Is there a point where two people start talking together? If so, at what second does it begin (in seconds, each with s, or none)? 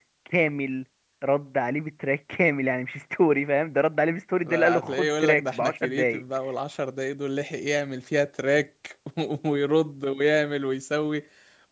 4.4 s